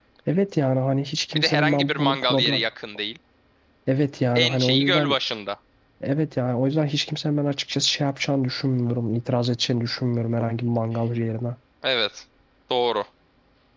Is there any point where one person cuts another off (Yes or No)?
Yes